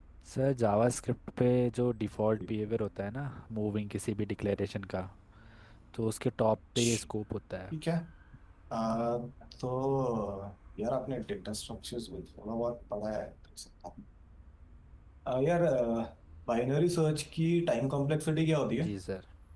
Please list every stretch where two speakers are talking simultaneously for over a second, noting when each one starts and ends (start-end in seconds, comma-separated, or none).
none